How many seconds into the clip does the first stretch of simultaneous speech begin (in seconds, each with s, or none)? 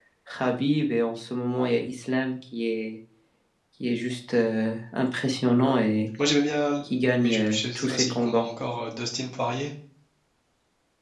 7.2 s